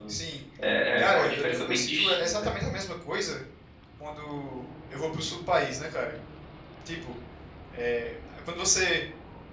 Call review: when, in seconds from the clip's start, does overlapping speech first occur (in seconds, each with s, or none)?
1.0 s